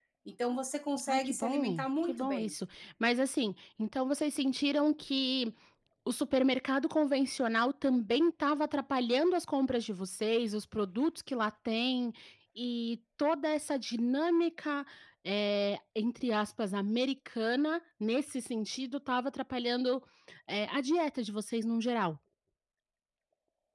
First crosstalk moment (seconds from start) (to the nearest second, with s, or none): 1 s